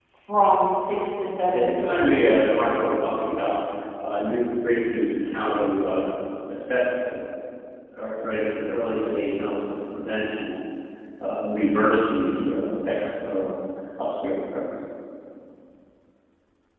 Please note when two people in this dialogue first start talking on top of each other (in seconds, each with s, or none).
1.5 s